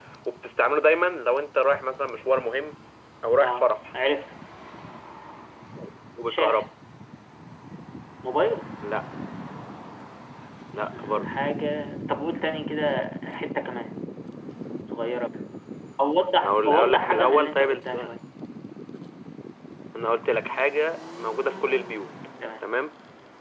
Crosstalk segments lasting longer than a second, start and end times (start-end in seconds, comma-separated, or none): 16.4-18.1